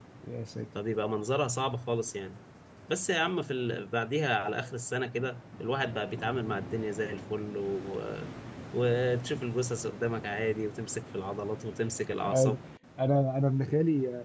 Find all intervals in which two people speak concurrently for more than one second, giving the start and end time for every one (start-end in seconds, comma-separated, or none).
none